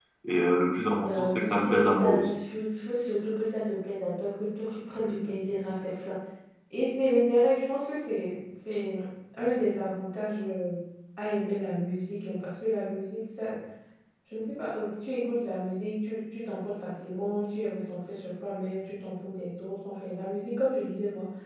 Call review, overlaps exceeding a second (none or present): present